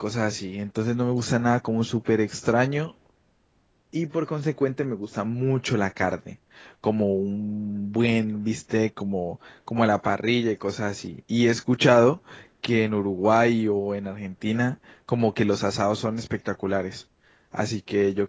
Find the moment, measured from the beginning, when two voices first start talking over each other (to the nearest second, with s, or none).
none